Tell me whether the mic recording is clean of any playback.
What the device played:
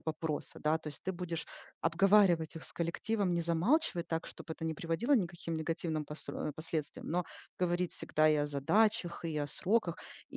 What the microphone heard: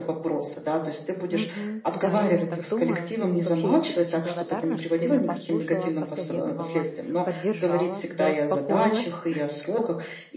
No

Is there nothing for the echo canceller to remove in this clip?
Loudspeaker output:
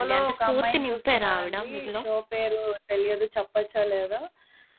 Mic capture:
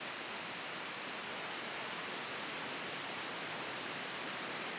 Yes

